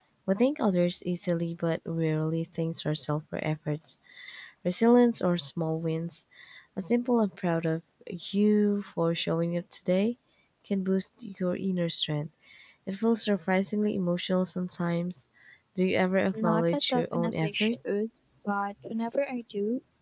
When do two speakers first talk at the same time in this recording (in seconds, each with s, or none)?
16.4 s